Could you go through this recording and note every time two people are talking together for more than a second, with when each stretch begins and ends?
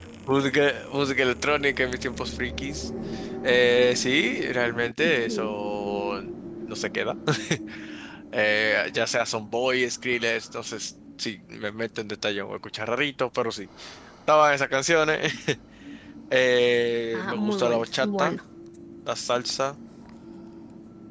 17.1-18.3

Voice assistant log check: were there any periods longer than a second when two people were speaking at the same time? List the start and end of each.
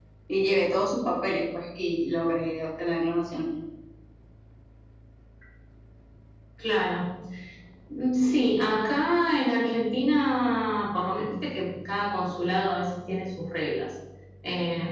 none

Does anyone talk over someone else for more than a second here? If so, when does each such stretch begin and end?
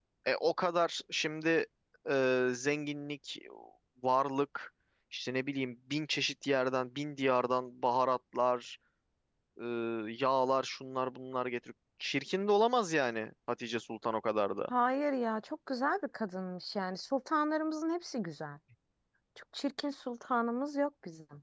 none

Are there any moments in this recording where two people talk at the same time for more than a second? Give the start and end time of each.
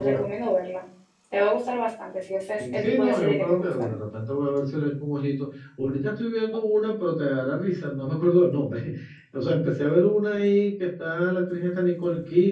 2.6-3.9

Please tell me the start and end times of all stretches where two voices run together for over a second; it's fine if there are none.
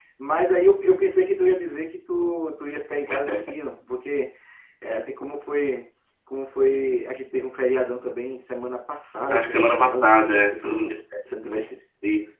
9.3-10.9

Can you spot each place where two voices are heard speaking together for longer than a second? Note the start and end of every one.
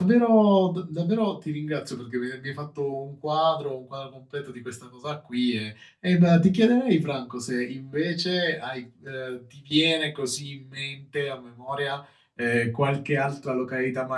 none

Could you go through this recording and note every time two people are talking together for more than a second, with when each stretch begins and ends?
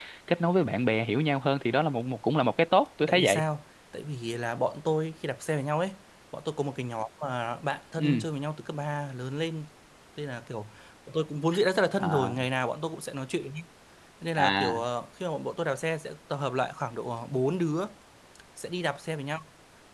none

